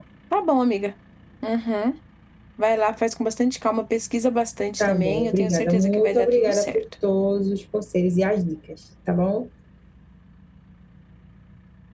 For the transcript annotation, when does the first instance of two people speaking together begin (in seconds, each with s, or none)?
4.8 s